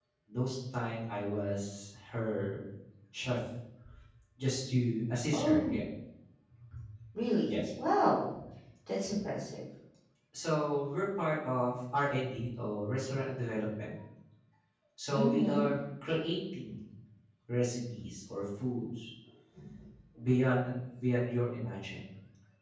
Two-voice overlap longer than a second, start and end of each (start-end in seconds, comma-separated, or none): none